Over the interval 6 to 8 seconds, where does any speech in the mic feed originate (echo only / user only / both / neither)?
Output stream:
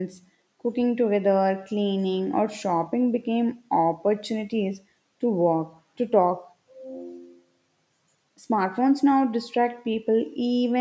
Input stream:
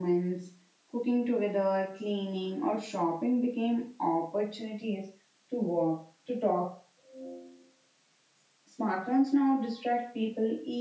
echo only